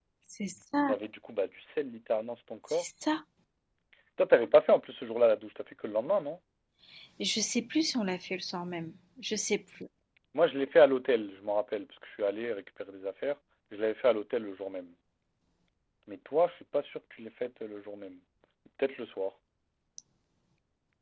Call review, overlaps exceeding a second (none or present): none